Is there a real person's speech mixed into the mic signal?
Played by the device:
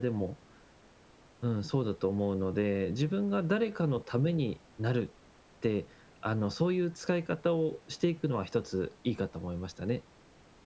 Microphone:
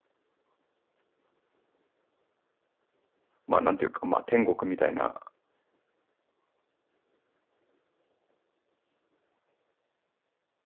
Yes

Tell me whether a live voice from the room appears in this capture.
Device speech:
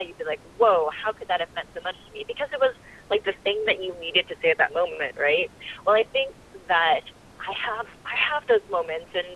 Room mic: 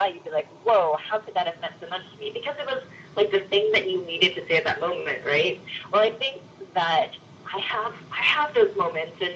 No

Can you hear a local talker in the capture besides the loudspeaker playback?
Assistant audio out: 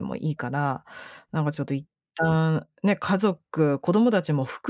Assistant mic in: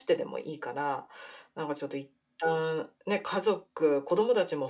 No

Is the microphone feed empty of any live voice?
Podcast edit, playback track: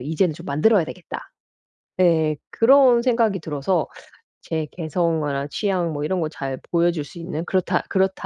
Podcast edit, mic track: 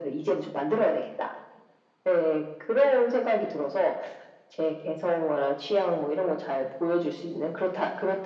Yes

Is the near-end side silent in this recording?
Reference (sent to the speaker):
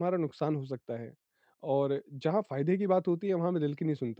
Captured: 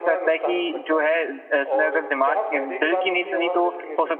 No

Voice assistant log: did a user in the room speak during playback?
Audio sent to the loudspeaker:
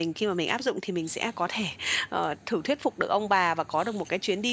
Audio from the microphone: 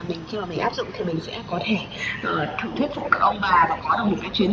No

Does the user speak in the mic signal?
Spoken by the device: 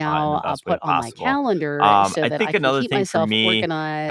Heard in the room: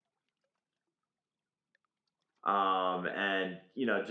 Yes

